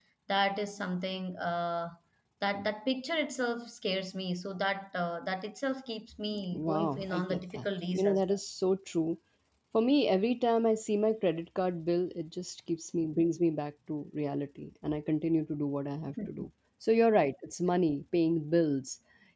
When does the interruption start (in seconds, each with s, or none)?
6.5 s